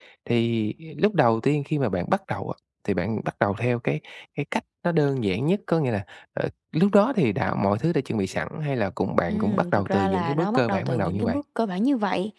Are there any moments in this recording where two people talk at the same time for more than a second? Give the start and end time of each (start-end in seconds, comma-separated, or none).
9.3-11.4